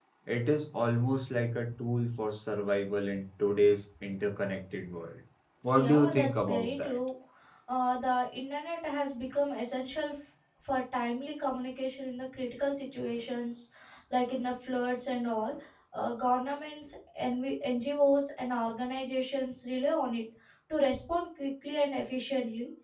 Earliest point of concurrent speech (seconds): 6 s

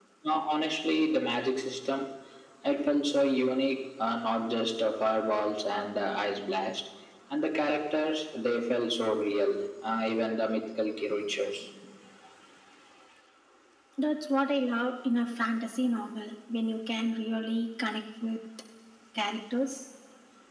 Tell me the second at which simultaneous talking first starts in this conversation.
none

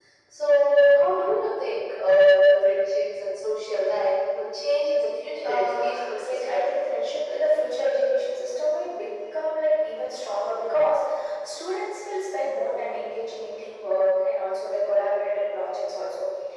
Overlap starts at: 5 s

